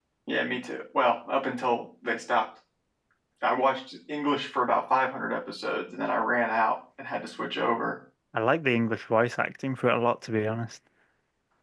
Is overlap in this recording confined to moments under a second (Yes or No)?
Yes